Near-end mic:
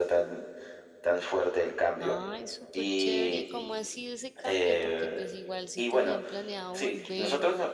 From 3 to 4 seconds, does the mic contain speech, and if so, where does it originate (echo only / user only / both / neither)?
both